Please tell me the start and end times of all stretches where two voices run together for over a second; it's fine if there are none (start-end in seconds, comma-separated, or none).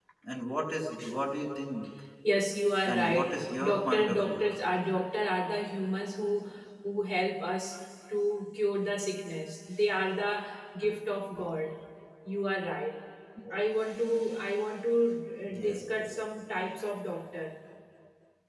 2.9-4.5